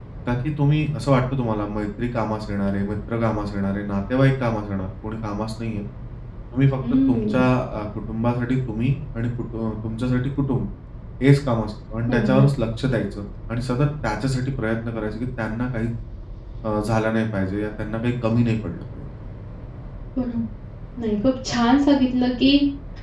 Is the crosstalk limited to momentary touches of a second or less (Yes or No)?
Yes